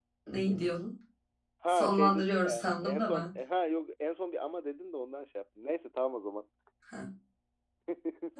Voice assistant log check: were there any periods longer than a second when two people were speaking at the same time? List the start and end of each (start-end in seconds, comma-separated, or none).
1.7-3.3